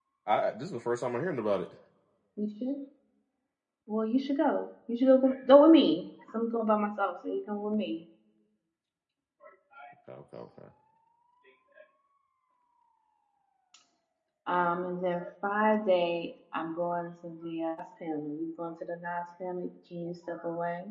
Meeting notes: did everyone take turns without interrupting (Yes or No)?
Yes